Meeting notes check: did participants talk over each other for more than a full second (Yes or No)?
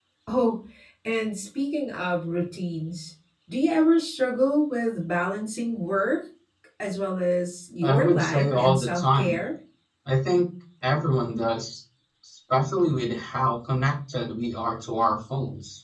Yes